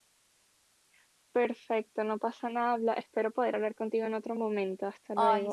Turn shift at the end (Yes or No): Yes